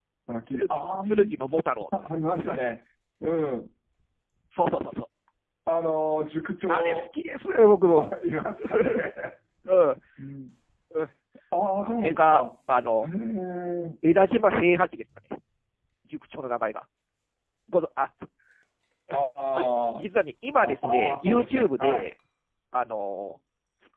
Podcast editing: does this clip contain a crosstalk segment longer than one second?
Yes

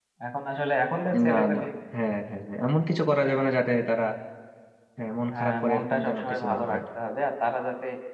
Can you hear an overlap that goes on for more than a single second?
Yes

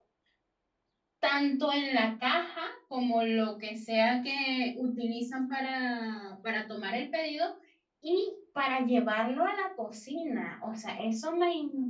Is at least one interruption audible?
No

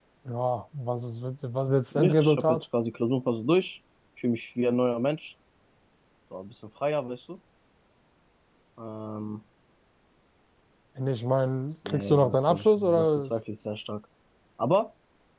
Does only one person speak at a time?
No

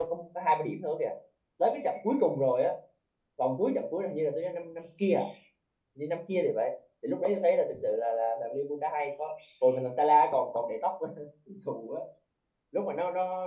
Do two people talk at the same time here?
No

